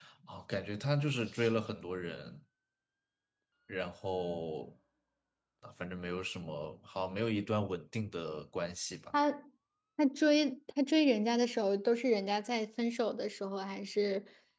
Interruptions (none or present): none